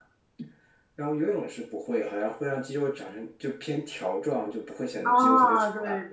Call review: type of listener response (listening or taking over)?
taking over